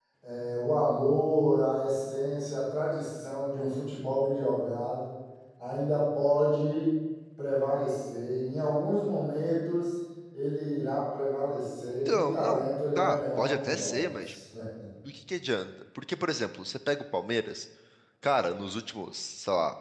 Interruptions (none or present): present